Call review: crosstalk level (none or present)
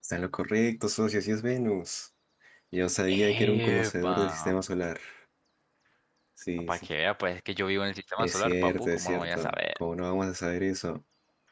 present